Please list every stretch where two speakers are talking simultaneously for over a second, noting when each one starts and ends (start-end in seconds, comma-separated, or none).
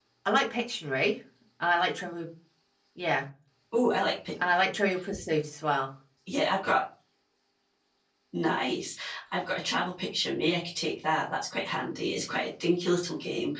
none